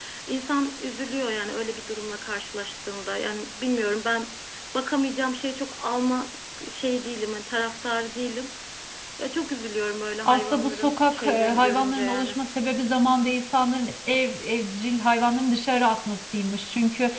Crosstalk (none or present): present